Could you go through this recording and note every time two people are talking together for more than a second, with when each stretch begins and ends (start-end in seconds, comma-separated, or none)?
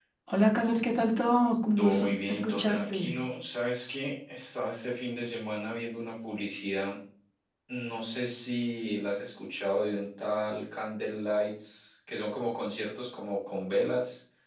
1.8-3.1